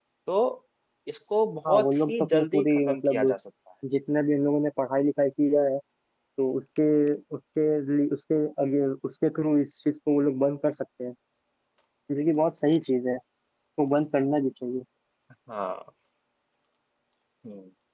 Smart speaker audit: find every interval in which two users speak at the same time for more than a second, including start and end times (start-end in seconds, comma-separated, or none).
1.7-3.2